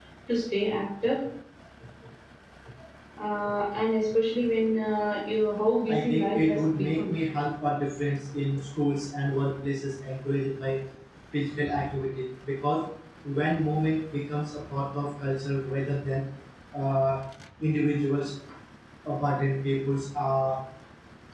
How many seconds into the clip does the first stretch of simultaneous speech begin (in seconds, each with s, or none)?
5.9 s